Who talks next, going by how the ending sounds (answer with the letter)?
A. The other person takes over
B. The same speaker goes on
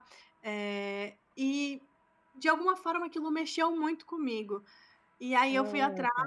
B